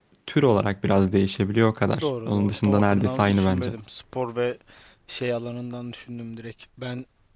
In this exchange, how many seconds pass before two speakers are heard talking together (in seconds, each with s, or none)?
1.9 s